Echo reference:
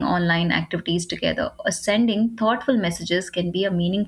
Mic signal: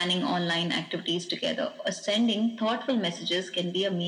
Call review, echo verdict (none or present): present